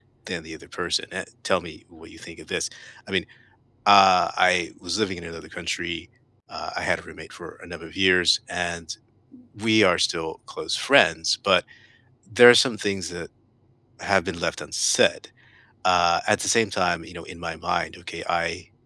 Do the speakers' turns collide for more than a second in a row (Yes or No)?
No